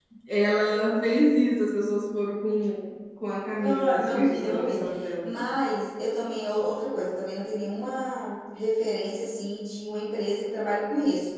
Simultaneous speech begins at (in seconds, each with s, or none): 3.5 s